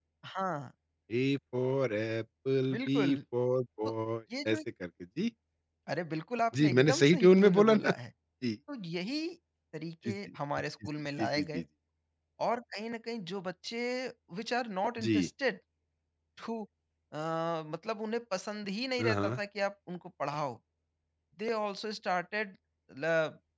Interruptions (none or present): present